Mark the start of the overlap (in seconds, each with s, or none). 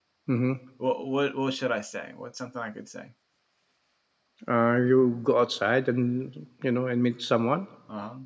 none